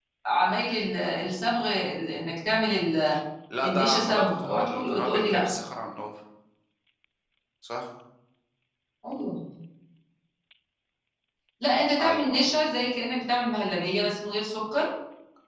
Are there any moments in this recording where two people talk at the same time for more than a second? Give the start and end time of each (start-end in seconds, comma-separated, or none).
3.6-5.5